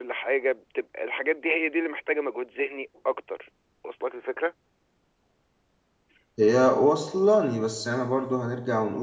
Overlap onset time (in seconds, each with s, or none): none